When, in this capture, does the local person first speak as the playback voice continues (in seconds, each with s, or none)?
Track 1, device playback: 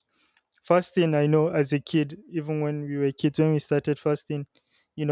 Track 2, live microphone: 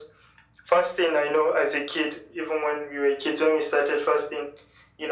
none